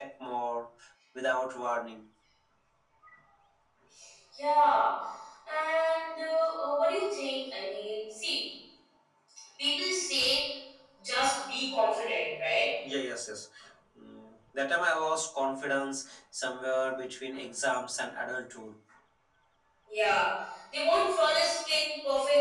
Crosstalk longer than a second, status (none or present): none